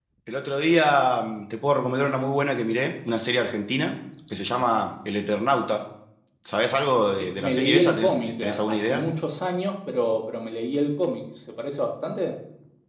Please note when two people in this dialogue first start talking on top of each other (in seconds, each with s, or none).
7.2 s